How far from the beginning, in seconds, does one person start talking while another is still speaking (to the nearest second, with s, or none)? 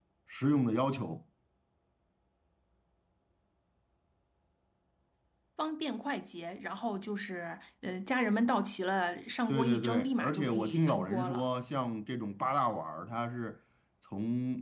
9 s